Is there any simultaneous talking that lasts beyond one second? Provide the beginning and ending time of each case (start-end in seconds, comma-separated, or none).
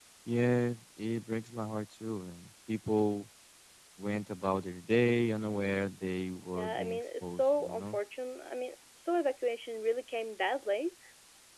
6.5-8.0